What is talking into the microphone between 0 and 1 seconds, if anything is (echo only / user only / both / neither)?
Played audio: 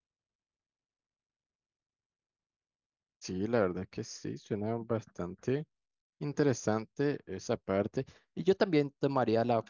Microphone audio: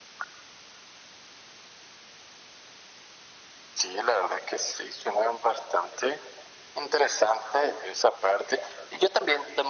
neither